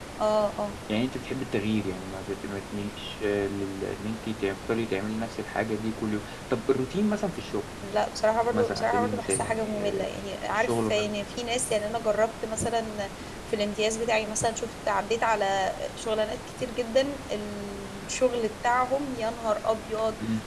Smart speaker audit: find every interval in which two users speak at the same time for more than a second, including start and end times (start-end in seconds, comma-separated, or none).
8.5-10.1